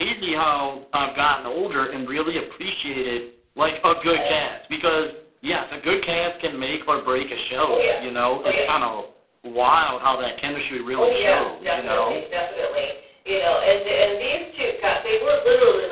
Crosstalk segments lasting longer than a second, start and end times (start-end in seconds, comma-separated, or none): 11.0-12.2